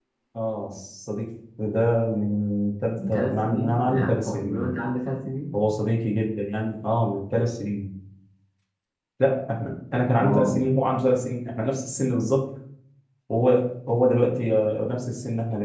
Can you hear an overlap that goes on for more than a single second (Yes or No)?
Yes